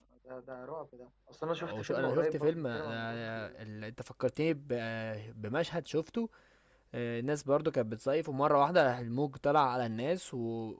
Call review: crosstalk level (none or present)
present